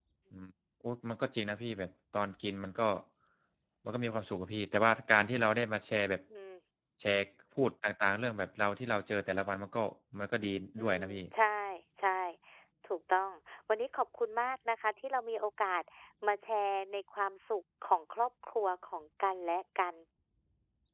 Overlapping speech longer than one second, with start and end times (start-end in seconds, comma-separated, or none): none